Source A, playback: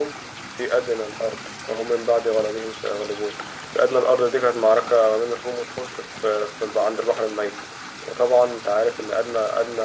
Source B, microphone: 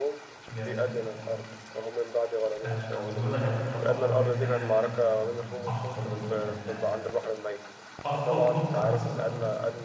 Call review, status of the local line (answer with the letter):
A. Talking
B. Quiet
A